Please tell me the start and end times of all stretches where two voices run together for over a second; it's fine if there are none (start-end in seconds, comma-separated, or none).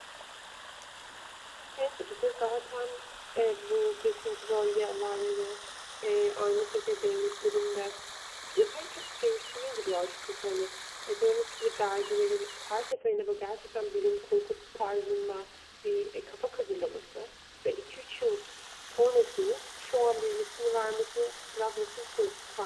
none